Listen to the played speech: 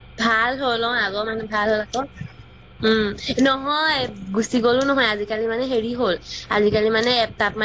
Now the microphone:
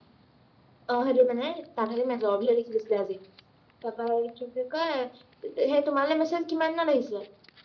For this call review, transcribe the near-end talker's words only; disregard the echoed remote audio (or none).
অ সেটো মানে তাত হেনো মেজৰ বুলিহে লিখি দিছিলে আজি, তাৰ পা আৰু কি বুলি কয়? তেতিয়াহে, তোমালে মেছেজ কিমান দিনত আহিছিলে?